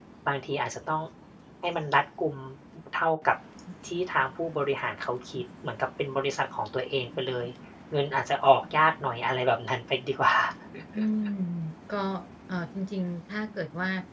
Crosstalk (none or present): none